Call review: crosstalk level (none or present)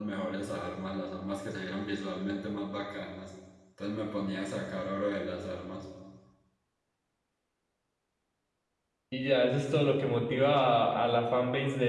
none